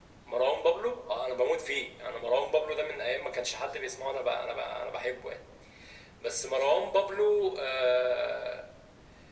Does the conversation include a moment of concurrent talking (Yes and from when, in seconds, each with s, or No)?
No